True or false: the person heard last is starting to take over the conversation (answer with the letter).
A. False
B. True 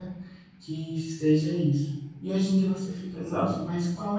A